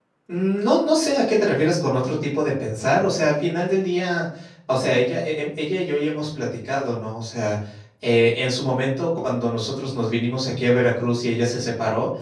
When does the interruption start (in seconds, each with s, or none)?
none